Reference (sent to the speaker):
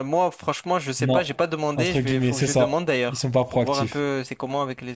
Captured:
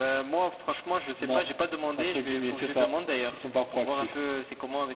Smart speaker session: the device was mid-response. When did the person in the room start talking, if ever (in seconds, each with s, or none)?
none